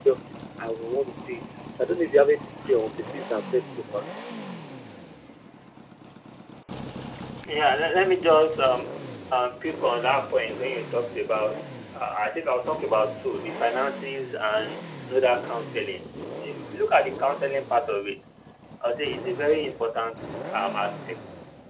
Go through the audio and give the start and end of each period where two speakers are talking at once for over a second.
none

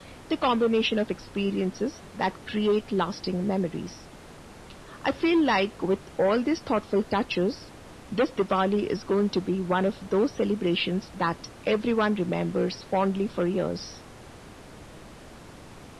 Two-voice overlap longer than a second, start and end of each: none

